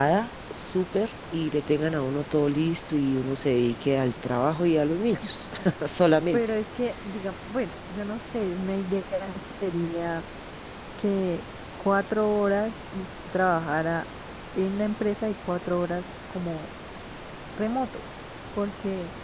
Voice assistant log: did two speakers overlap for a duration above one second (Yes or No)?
No